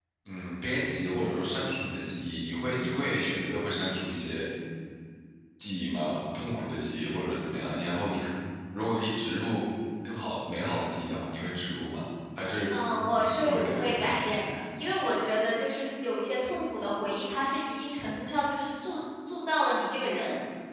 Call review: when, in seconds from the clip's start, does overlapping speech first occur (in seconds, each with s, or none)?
13.2 s